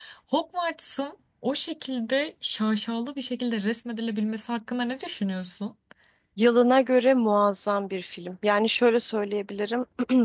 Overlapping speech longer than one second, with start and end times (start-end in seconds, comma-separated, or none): none